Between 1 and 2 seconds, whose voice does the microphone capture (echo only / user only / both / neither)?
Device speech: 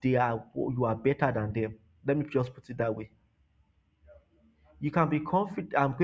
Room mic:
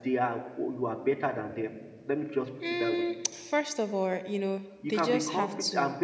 echo only